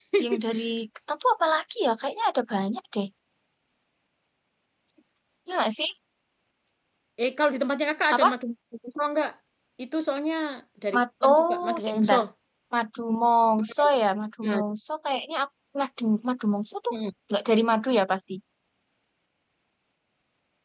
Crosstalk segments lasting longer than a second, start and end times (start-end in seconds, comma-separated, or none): 10.9-12.2